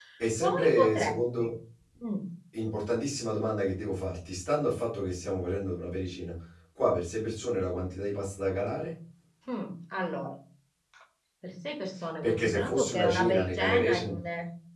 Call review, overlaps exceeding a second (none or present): present